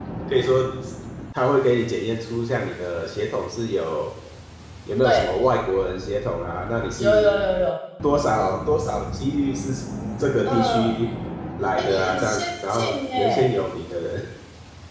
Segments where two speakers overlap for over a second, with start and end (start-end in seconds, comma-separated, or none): 11.8-13.5